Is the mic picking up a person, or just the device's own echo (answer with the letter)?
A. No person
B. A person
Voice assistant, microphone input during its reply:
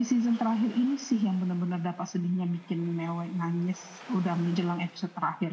A